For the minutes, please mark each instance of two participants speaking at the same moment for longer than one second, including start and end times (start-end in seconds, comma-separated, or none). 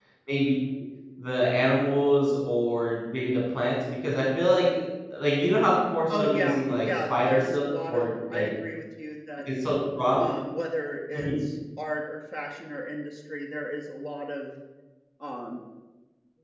6.2-8.5